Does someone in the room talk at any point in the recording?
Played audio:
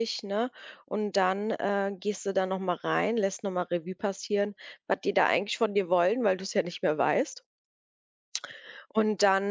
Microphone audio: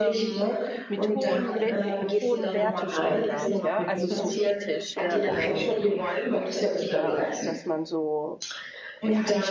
Yes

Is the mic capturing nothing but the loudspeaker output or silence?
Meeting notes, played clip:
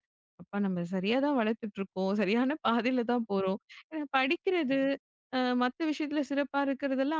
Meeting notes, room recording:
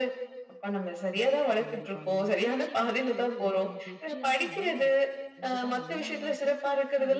No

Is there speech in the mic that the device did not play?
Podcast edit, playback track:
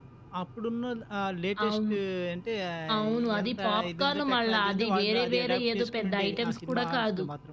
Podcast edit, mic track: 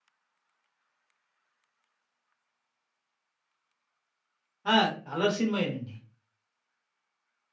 Yes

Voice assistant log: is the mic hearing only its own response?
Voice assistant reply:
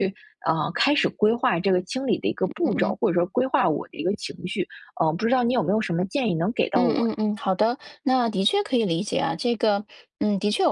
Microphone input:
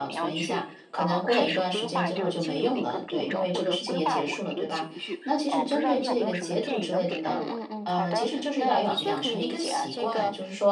No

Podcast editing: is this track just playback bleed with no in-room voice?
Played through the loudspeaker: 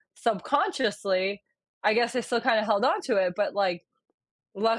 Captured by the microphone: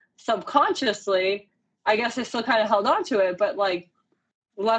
Yes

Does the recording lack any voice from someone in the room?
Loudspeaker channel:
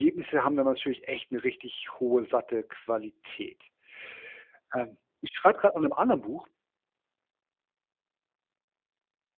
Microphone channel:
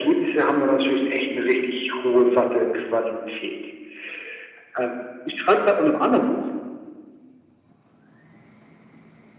Yes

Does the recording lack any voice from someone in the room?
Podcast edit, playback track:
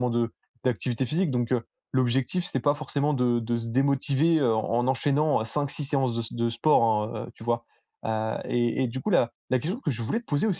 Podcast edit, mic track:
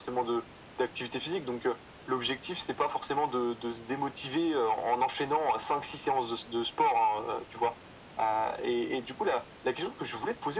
Yes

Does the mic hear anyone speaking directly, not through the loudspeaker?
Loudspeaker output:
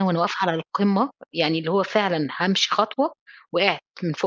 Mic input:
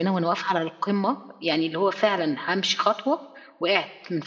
No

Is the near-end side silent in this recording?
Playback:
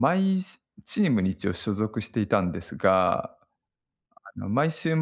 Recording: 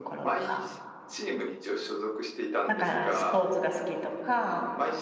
No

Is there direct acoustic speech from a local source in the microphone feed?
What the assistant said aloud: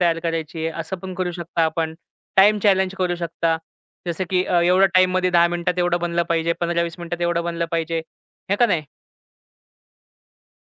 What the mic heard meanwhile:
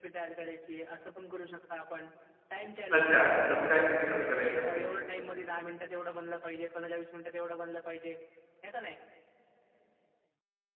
Yes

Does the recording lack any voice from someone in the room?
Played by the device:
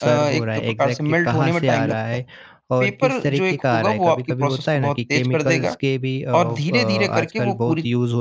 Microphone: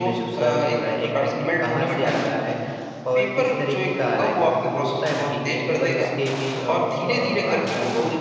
Yes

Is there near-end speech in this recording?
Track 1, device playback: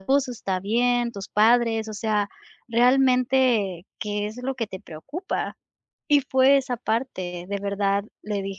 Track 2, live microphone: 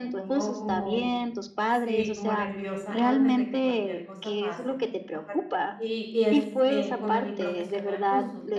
Yes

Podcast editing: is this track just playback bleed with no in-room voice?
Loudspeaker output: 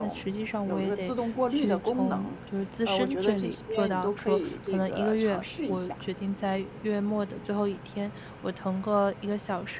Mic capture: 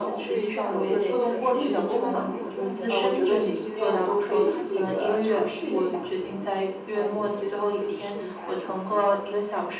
No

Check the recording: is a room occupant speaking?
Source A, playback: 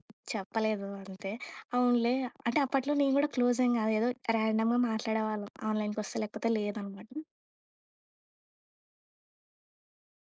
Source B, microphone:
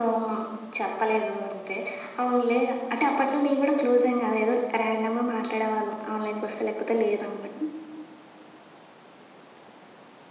No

